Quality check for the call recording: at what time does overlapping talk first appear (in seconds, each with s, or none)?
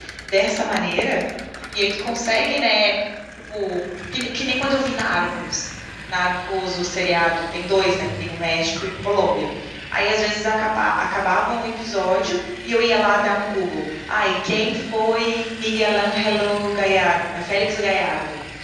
none